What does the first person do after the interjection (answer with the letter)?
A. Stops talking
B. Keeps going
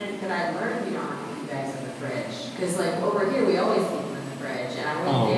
A